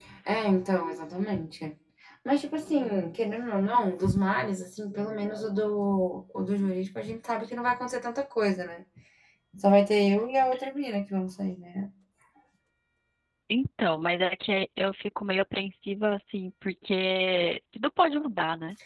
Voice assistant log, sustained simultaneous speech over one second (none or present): none